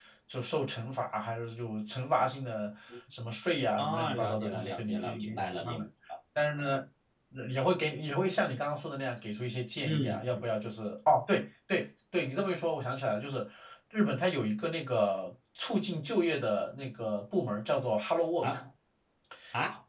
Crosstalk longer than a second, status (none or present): present